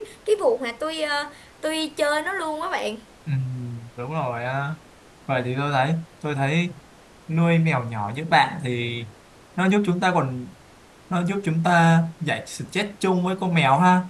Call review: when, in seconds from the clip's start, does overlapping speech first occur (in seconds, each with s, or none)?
none